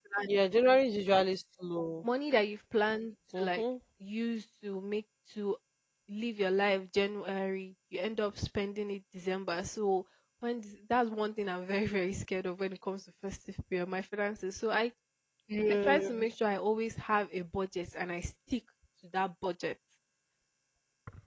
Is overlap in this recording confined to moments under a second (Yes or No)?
Yes